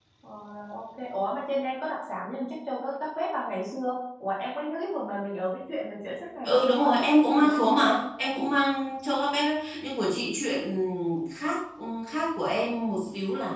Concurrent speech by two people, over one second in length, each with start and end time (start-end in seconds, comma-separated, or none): 6.4-7.8